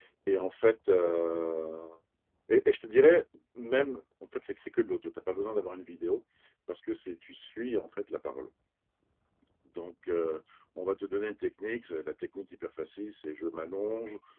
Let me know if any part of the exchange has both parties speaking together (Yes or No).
No